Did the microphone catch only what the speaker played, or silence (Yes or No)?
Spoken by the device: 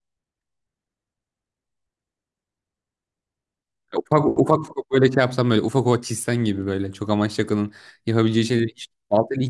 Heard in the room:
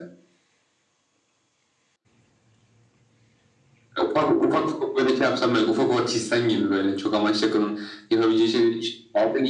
Yes